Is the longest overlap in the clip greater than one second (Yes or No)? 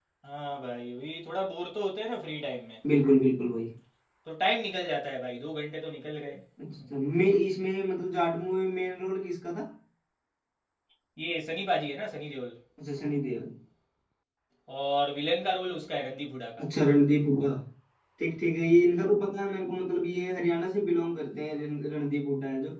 No